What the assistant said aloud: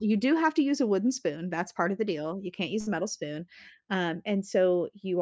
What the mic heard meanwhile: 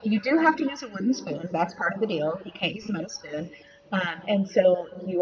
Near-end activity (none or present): none